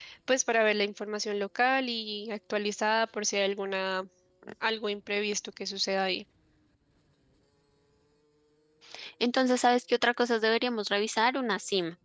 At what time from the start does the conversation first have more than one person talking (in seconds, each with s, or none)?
none